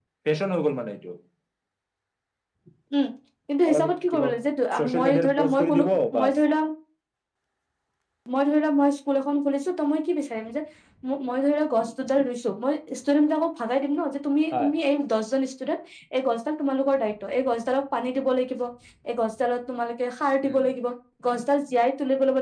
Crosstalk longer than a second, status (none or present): present